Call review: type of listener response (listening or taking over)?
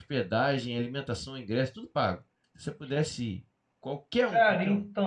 taking over